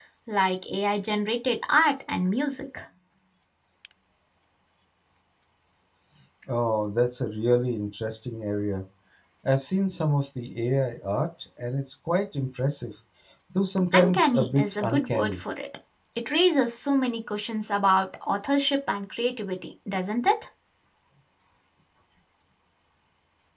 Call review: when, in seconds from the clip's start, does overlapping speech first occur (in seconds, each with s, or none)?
13.9 s